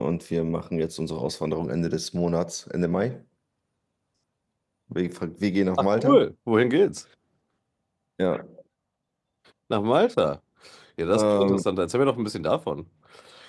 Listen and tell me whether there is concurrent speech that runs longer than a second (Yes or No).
No